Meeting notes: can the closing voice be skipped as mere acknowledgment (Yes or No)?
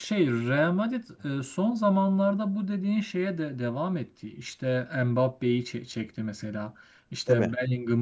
Yes